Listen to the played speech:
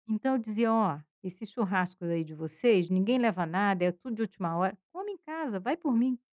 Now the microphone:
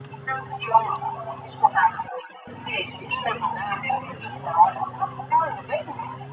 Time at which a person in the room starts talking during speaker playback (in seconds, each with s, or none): none